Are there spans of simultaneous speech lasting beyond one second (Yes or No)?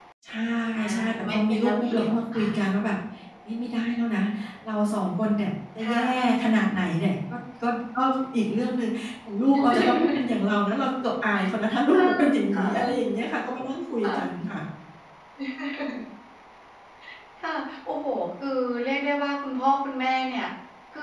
Yes